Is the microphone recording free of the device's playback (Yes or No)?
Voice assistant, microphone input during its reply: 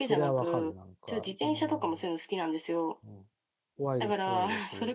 No